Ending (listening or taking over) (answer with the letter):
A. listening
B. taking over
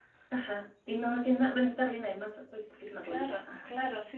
B